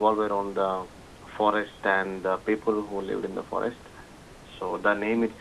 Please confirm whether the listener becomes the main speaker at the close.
No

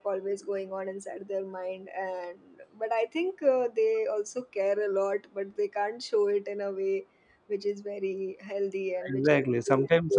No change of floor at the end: No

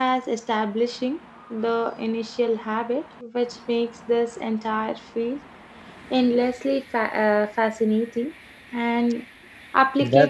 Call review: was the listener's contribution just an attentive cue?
Yes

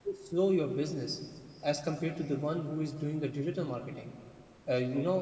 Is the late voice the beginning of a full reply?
No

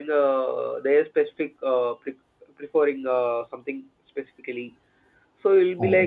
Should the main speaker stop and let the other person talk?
No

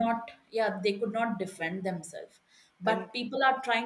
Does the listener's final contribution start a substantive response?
No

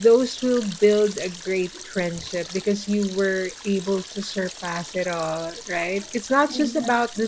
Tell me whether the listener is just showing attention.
Yes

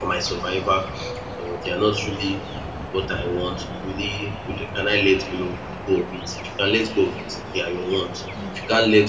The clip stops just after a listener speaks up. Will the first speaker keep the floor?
Yes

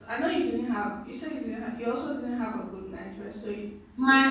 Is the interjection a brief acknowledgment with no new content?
No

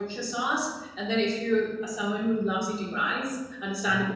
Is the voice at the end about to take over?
No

